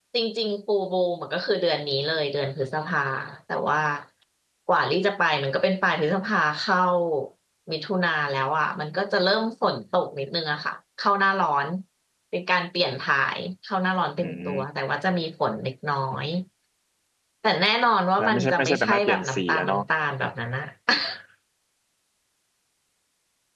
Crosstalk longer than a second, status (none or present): present